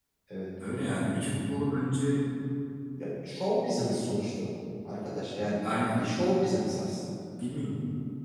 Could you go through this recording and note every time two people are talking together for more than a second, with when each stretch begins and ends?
none

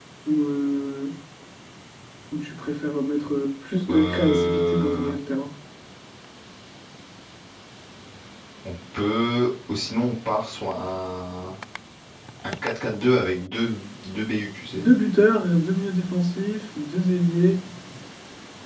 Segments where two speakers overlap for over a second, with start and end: 3.9-5.1

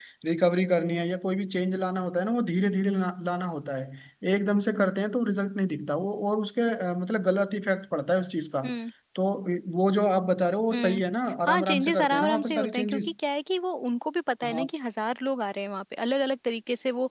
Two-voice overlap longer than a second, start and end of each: 11.5-13.1

